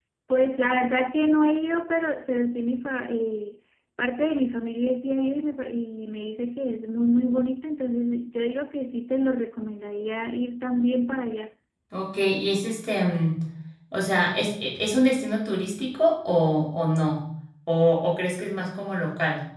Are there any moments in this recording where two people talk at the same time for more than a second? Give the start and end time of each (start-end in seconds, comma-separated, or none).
none